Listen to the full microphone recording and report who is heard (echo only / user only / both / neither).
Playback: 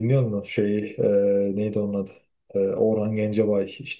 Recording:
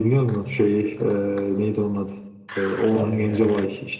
both